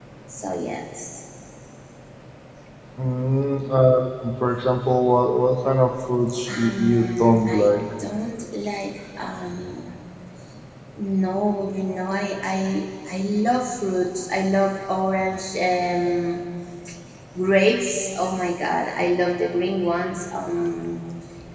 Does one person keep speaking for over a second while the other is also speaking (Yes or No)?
Yes